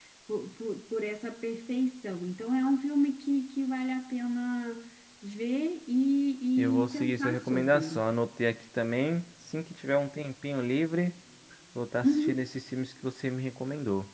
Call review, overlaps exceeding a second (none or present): present